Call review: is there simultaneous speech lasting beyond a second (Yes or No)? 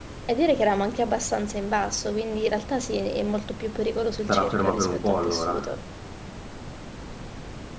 Yes